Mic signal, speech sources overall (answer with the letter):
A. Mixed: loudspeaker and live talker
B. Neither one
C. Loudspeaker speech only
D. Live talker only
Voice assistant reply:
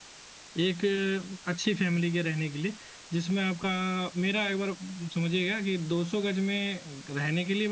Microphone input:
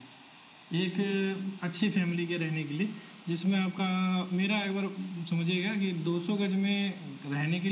C